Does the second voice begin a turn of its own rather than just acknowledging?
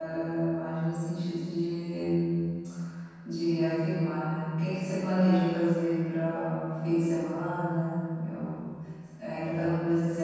No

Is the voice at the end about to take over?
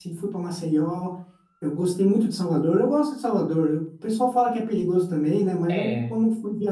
No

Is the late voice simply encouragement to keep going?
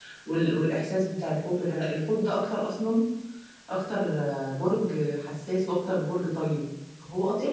No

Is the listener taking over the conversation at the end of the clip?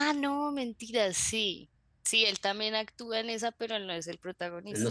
Yes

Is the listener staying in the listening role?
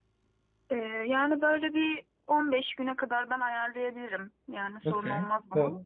No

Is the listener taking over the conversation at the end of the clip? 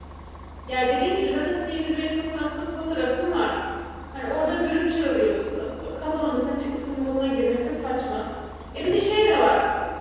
No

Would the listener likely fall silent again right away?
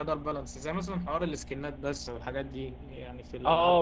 No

